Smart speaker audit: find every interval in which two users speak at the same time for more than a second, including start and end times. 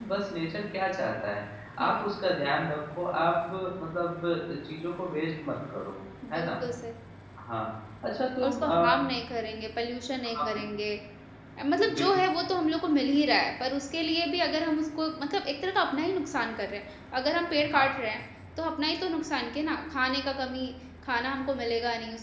none

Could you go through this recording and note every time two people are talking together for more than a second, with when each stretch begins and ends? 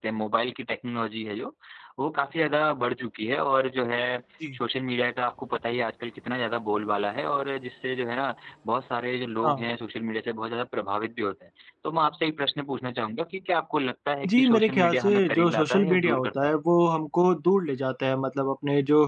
14.4-16.5

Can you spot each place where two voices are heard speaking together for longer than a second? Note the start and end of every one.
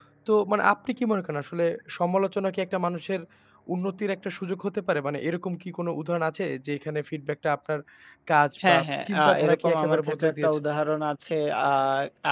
8.7-10.6

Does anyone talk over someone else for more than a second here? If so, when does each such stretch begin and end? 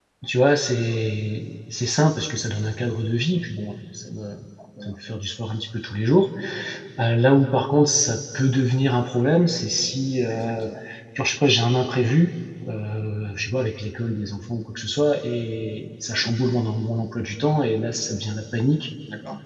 none

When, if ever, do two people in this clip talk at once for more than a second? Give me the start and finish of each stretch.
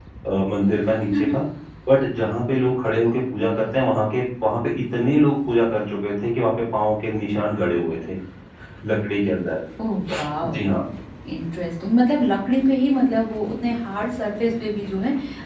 none

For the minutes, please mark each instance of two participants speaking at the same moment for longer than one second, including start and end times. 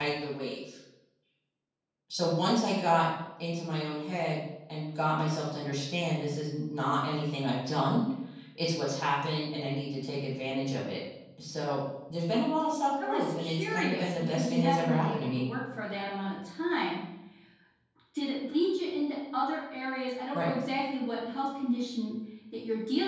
13.1-15.4

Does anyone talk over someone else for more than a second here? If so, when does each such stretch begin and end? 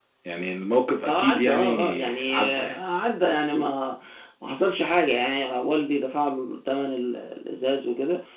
1.1-2.8

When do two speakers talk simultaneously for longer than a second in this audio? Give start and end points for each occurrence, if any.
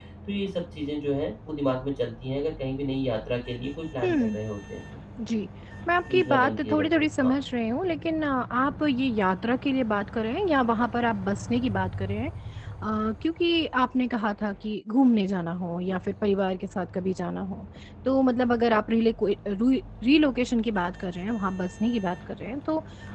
6.1-7.3

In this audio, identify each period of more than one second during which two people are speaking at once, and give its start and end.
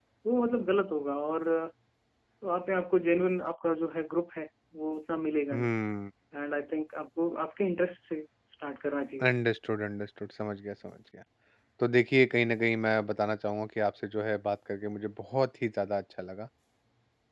none

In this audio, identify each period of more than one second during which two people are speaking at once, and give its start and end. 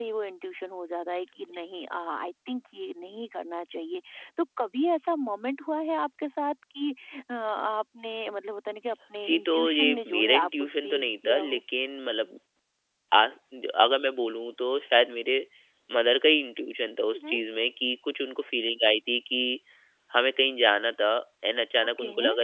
9.2-11.6

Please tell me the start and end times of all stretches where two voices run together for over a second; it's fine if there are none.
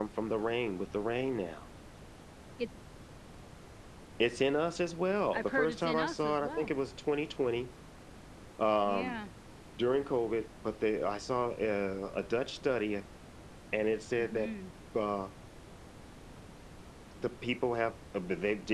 5.3-6.7

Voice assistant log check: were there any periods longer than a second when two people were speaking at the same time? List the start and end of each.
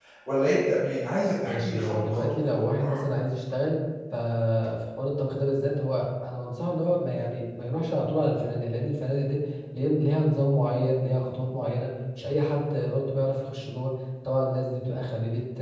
1.4-3.0

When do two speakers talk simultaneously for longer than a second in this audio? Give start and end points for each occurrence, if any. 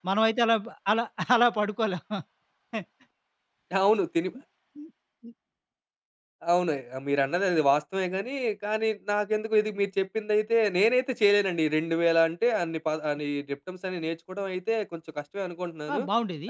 none

